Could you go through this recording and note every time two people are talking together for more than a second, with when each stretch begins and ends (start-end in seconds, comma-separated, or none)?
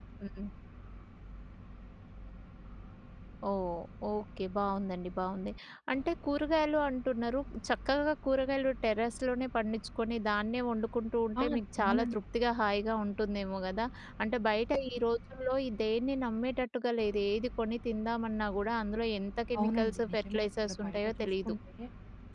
19.6-21.5